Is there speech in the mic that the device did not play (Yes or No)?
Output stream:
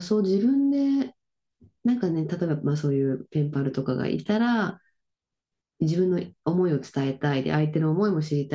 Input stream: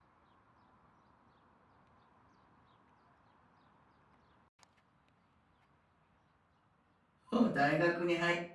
Yes